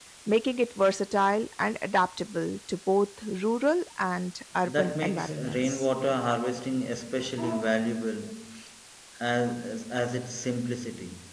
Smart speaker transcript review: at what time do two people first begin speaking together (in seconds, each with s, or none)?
4.6 s